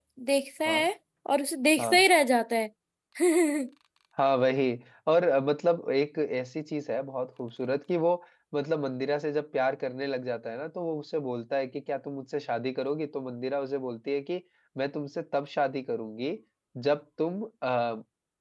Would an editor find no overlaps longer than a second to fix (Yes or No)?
Yes